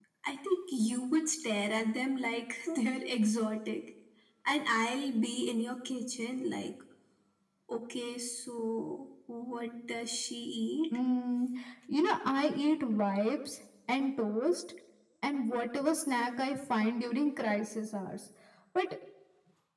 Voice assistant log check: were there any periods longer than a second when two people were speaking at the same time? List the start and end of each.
none

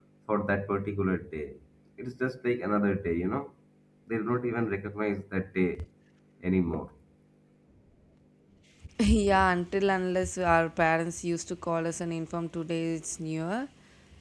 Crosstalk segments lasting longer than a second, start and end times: none

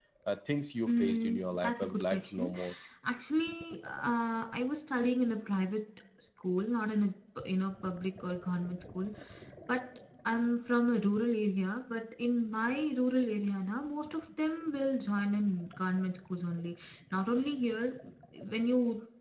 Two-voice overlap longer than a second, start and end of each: 0.9-2.5

